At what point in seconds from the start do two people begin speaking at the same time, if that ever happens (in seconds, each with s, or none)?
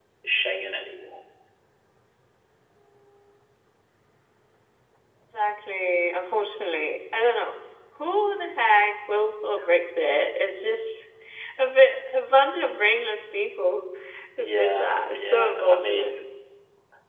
14.4 s